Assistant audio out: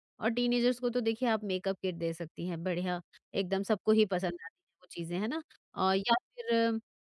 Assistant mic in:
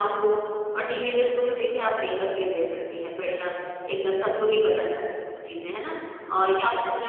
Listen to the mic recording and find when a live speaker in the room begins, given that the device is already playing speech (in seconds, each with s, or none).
none